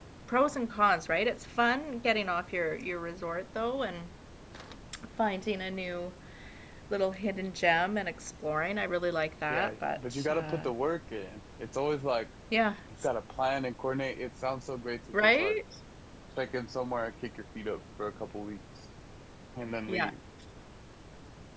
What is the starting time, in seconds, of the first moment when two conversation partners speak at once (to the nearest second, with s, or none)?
9 s